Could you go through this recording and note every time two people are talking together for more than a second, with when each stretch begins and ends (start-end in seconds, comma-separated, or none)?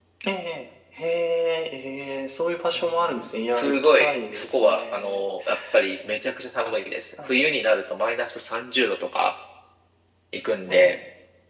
2.7-5.2